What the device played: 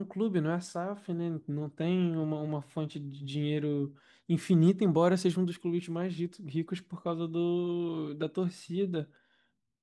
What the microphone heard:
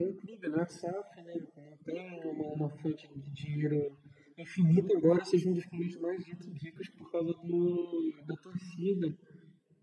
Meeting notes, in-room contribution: none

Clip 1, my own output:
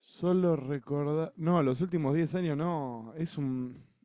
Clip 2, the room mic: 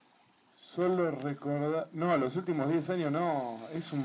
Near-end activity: none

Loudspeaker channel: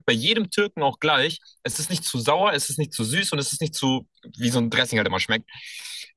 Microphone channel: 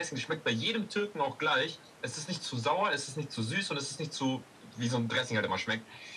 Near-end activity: none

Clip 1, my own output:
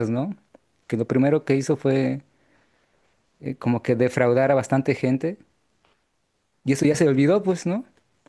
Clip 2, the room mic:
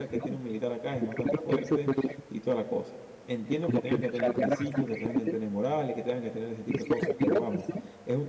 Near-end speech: present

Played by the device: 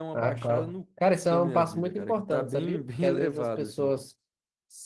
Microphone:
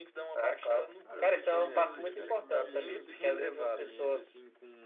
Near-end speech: present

